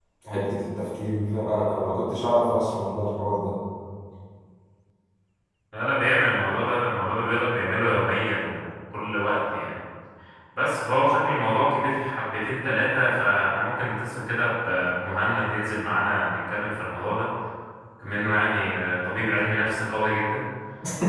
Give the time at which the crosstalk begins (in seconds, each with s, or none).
none